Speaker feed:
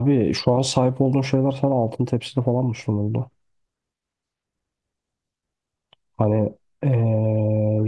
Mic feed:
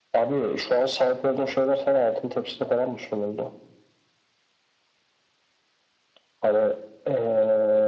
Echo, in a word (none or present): present